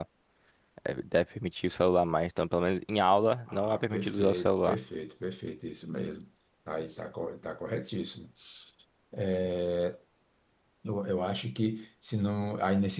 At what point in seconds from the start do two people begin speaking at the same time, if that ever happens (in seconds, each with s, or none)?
3.5 s